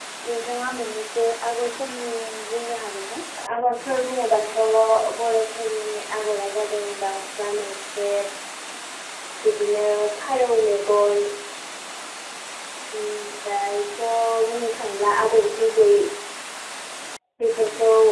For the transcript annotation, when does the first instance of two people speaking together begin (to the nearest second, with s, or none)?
none